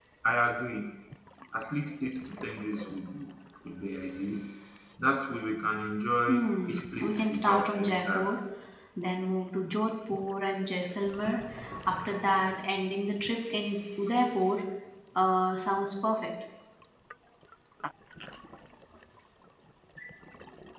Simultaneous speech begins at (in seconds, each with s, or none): 6.3 s